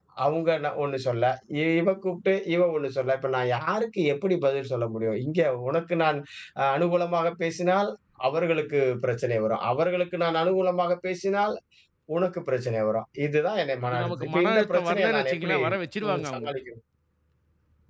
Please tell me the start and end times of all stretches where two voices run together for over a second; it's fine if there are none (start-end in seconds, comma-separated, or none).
13.8-15.6